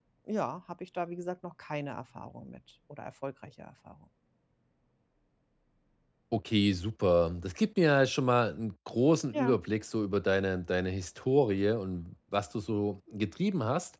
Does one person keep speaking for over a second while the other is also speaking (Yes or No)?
No